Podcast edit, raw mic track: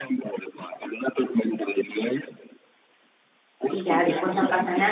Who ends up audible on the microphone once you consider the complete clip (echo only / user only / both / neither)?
both